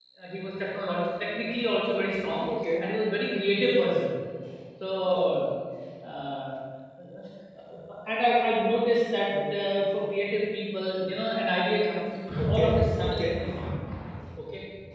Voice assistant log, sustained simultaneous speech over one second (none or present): present